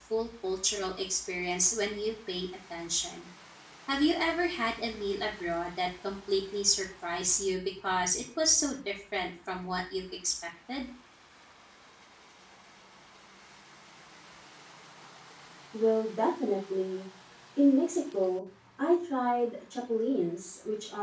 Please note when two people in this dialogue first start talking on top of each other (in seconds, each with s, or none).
none